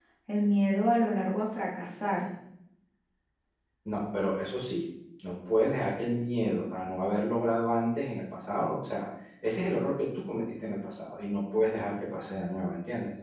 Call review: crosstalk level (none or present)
none